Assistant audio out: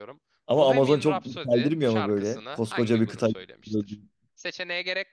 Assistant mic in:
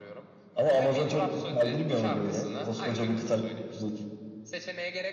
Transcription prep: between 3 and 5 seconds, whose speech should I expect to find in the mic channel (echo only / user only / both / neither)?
echo only